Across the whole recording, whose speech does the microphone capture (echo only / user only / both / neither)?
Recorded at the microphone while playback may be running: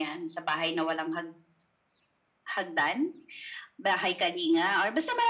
echo only